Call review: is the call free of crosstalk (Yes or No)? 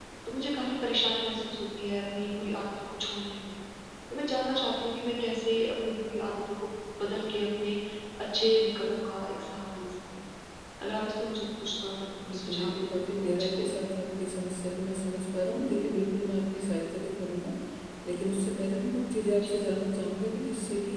No